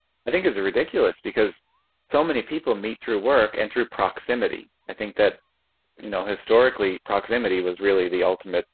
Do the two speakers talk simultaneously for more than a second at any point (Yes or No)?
No